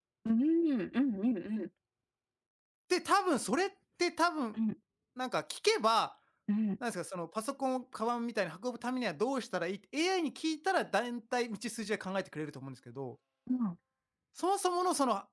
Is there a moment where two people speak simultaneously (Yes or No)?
No